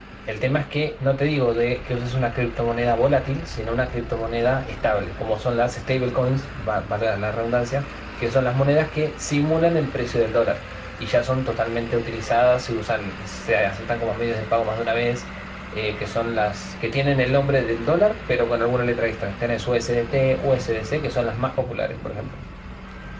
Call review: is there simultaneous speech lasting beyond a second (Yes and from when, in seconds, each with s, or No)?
No